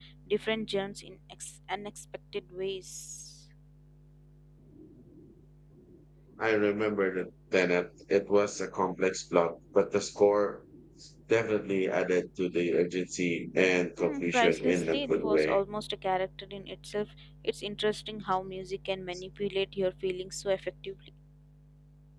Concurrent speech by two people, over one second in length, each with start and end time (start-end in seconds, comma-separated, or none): 14.0-15.6